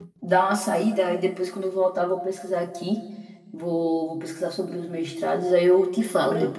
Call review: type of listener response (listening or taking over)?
taking over